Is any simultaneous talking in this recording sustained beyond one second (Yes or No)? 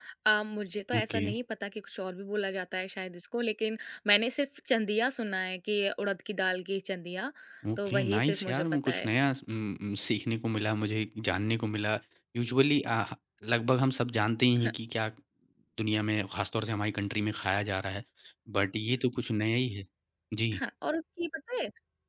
Yes